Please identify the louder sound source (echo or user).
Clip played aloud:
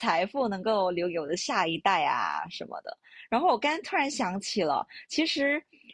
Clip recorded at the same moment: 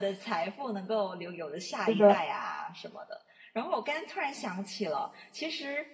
user